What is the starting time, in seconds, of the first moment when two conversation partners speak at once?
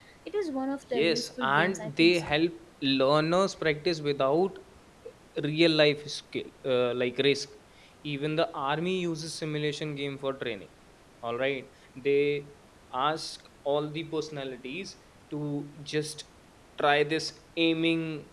1 s

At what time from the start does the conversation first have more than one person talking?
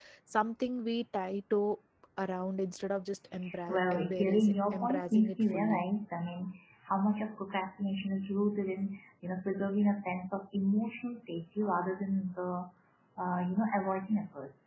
4 s

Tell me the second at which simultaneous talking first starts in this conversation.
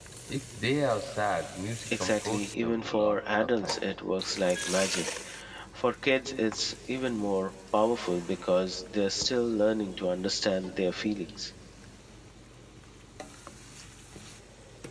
2 s

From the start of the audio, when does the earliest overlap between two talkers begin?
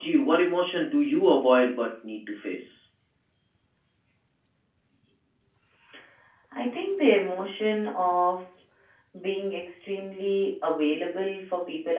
none

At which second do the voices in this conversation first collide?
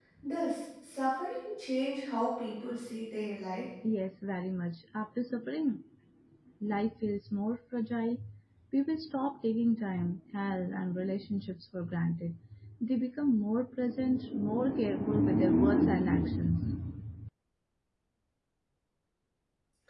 none

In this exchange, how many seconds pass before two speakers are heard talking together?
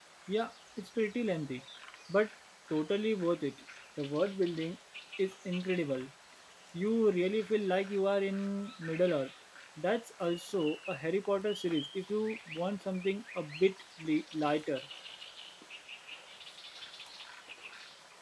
none

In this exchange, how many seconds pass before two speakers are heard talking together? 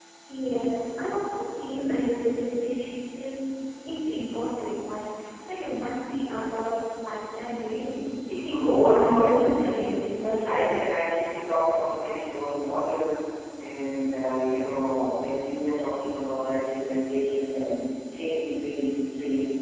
8 s

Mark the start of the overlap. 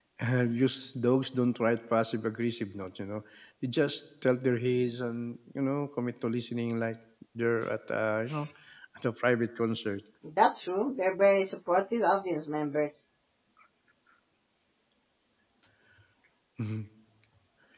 none

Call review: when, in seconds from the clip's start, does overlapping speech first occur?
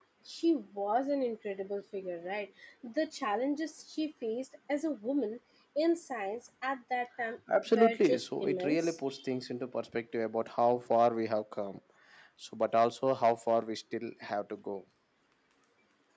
8 s

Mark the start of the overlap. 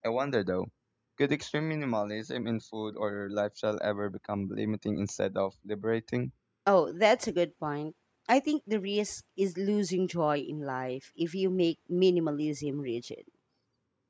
none

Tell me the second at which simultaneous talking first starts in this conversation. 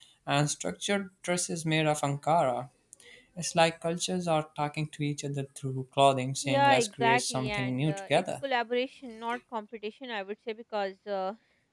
6 s

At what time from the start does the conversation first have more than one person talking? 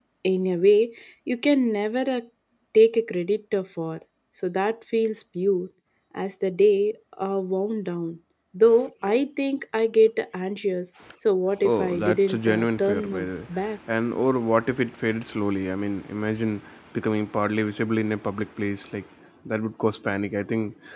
12 s

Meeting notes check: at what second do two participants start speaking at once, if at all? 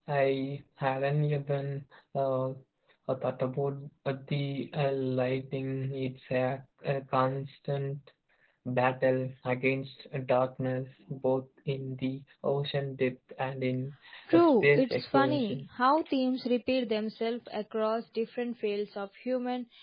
14 s

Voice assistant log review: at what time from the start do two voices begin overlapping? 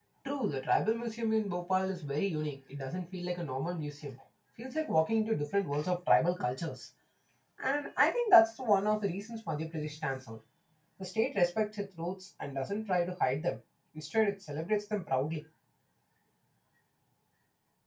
none

